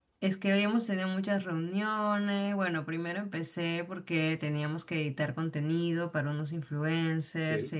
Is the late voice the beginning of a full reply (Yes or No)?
No